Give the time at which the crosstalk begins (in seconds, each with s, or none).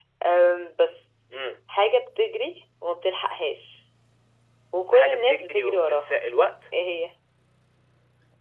4.9 s